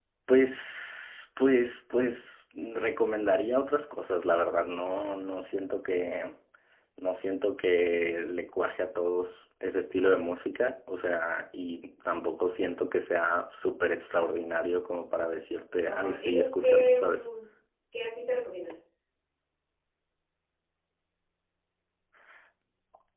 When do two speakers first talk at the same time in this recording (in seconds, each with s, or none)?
15.8 s